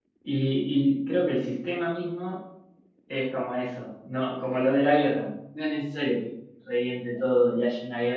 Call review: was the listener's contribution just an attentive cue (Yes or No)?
Yes